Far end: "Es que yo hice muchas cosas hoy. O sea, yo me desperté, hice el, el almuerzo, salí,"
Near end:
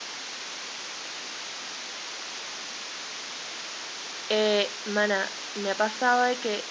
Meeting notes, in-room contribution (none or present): present